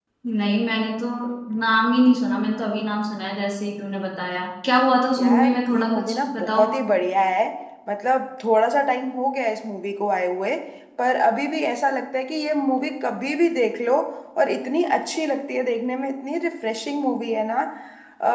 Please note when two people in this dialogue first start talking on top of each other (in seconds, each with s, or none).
5.2 s